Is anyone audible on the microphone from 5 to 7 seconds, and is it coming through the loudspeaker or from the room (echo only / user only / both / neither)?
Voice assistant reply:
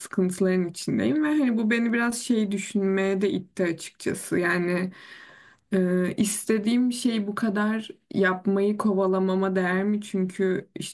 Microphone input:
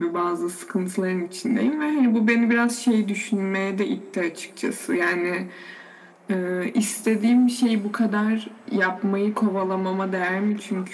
echo only